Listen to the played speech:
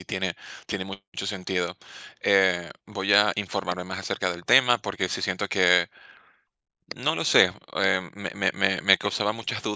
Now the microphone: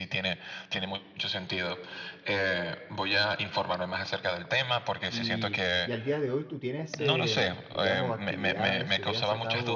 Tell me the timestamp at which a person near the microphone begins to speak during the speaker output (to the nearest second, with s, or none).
5 s